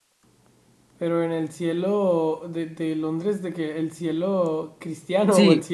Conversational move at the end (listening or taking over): taking over